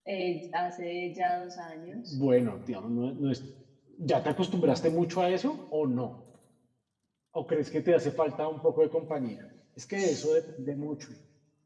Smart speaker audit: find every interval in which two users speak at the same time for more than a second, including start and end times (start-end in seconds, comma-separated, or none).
none